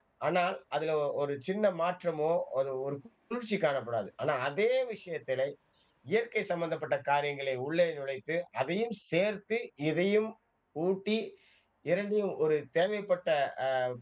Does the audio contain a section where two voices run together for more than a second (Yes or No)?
No